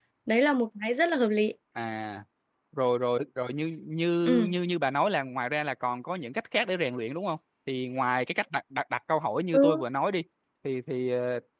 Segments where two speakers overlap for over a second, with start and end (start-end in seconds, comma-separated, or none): none